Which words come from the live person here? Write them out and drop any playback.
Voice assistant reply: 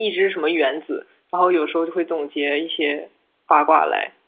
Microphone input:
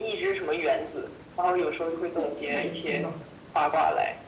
特定的人是没有的。

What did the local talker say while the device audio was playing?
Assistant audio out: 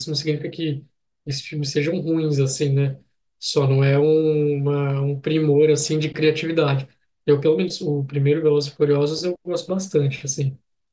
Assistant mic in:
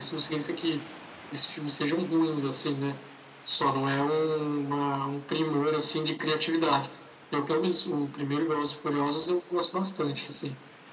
none

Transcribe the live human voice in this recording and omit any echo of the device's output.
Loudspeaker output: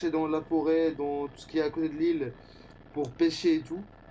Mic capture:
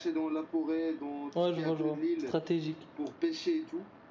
Ouais, je vois, je vois. Stratégique.

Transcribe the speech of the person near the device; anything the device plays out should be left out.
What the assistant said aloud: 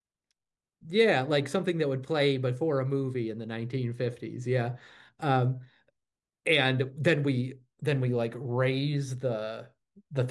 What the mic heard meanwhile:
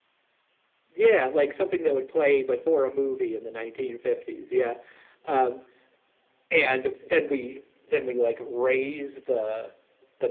none

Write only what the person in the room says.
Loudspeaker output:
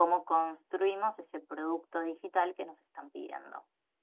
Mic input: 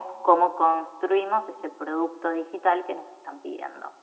none

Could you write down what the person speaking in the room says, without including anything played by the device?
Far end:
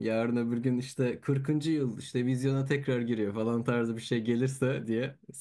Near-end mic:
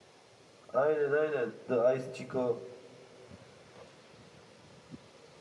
Aynen aynen. The Ice Chico.

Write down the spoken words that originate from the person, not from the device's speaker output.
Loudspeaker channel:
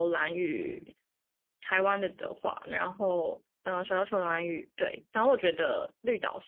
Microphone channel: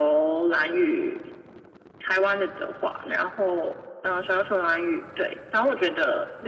none

